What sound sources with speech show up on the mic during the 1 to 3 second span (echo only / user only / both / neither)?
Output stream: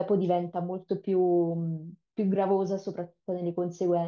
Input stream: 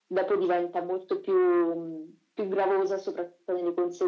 echo only